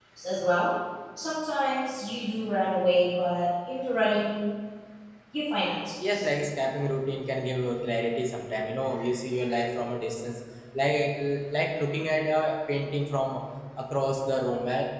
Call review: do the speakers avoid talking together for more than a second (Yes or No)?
Yes